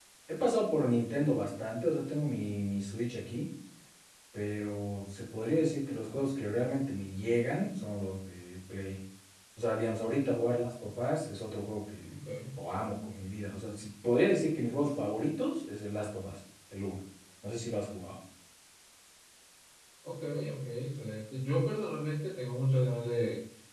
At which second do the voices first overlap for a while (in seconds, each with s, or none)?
none